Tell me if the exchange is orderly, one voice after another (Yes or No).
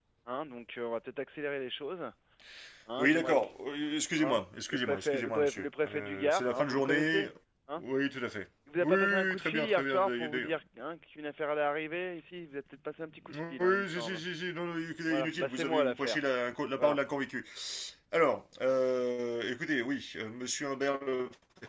No